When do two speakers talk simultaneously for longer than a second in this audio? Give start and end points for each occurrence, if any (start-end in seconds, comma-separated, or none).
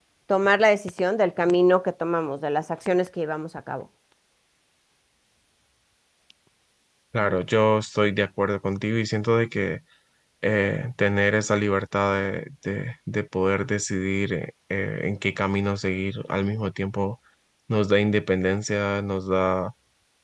none